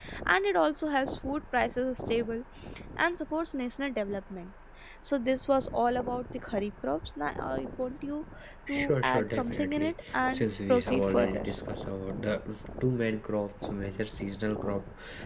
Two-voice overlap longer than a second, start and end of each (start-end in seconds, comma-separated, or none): 8.7-11.4